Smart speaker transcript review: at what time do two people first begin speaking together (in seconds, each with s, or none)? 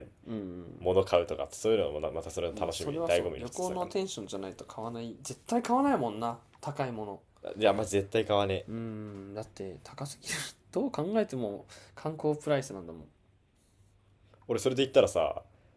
2.5 s